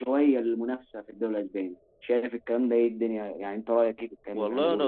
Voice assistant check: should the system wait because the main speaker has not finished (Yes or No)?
No